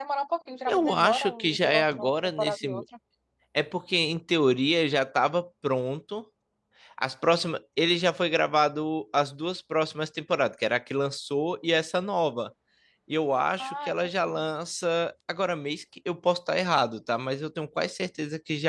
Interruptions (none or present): present